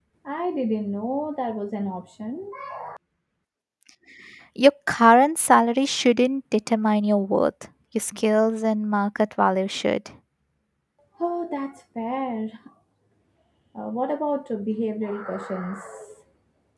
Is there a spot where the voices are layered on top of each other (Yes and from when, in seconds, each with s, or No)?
No